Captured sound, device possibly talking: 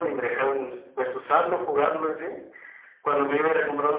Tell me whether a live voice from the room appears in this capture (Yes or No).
No